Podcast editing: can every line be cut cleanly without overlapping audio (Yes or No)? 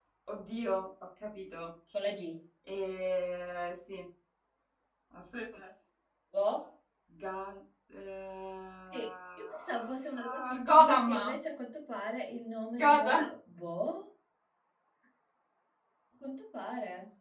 No